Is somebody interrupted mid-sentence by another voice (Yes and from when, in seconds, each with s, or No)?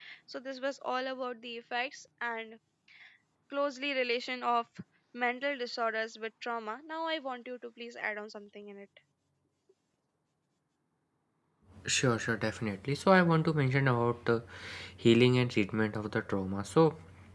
No